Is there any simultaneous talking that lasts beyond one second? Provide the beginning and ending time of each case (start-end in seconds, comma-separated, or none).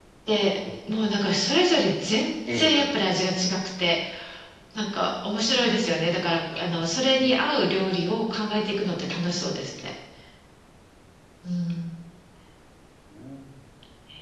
none